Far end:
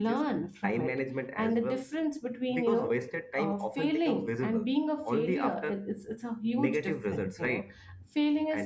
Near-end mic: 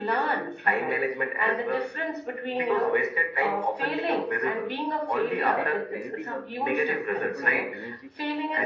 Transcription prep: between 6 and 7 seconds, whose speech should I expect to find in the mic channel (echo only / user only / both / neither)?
both